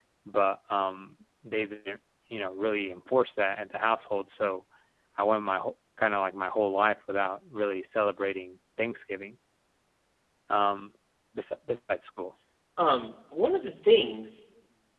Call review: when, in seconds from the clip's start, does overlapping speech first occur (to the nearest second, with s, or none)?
none